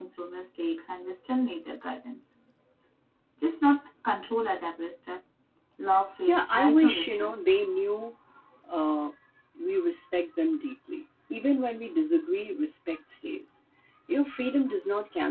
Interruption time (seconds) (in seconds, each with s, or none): 6.3 s